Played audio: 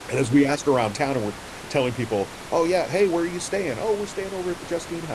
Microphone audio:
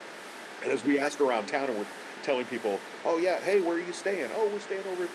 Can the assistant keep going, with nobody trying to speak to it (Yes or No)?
Yes